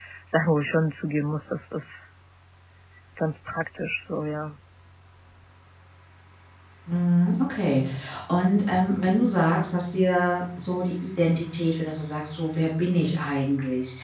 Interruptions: none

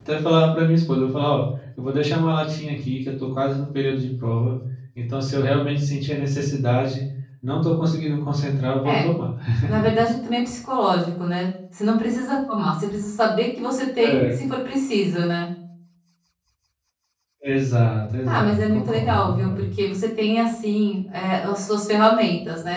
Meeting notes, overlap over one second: present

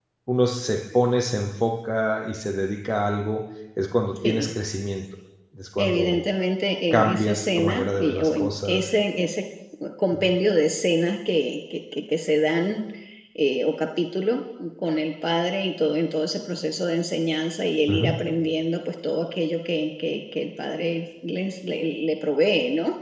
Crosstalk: present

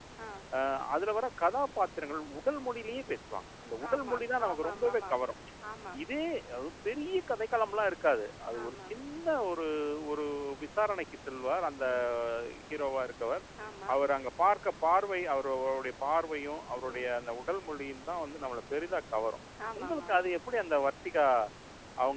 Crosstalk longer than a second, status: present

